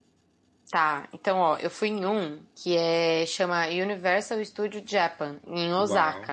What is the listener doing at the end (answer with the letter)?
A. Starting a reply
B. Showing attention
A